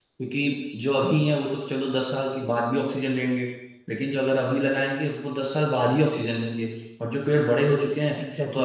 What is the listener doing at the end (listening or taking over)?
listening